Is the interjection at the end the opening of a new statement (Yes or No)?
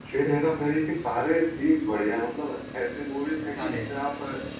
No